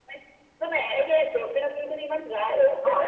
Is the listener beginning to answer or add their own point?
Yes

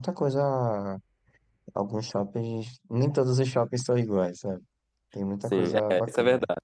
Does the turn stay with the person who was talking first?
No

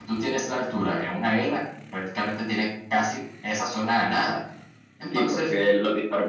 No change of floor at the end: No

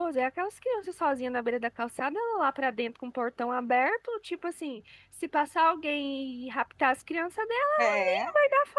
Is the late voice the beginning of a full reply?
No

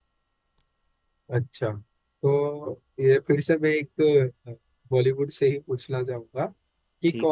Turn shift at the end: No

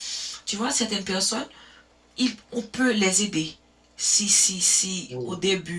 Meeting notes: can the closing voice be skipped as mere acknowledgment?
Yes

